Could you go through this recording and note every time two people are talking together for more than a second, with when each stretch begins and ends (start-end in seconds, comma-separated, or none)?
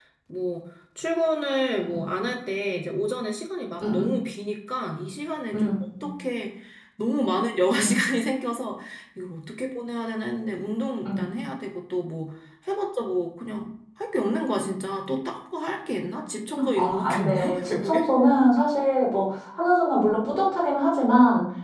16.8-18.1